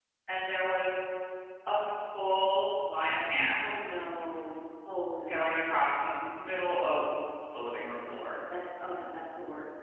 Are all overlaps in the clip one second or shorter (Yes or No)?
Yes